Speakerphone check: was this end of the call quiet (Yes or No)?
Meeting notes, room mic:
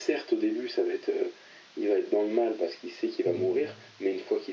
No